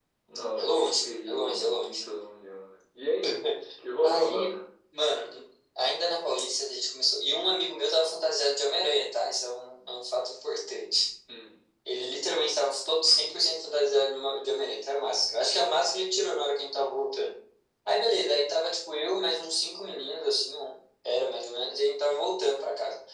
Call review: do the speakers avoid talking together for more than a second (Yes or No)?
No